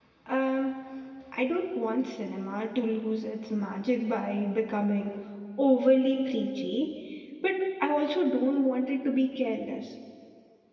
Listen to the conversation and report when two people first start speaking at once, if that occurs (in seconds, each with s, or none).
none